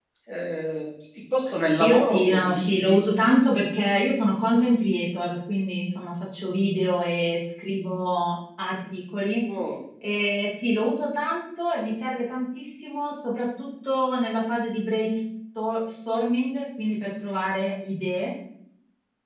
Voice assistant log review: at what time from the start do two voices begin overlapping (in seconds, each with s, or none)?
1.8 s